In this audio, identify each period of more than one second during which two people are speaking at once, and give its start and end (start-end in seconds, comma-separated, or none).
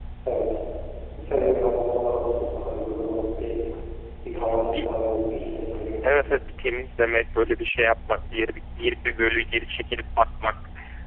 none